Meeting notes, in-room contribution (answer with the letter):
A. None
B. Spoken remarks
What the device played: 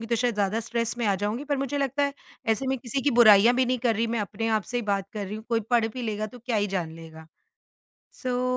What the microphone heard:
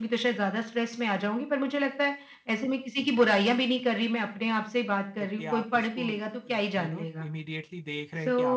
B